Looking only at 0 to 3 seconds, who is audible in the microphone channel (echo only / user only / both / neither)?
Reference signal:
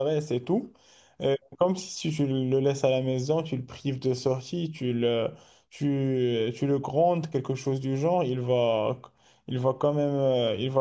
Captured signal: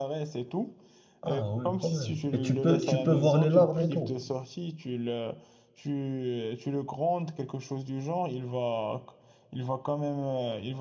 both